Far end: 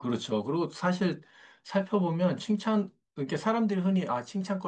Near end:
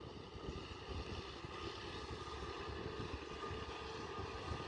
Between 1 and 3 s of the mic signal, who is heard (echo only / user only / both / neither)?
neither